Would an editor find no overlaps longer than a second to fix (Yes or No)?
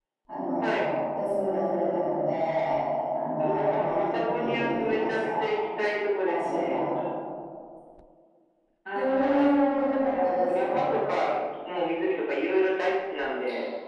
No